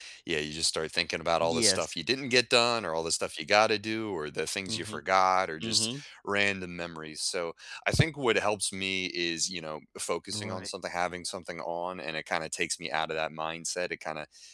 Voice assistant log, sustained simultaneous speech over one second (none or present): none